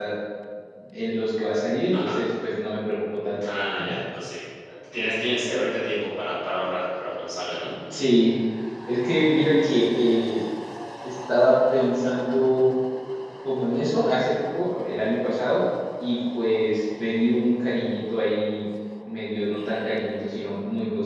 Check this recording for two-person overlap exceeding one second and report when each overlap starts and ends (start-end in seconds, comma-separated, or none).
none